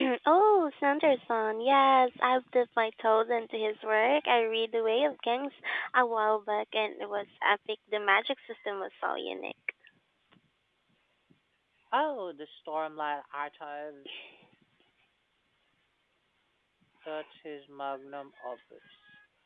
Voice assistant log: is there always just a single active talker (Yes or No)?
Yes